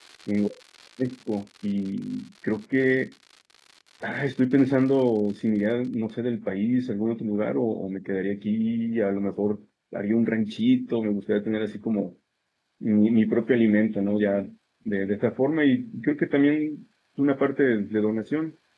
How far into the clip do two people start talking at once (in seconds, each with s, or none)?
none